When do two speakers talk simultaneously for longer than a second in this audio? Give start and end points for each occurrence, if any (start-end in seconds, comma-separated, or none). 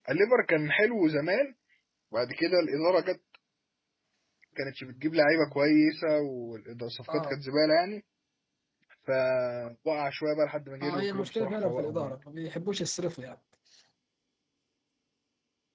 10.8-12.1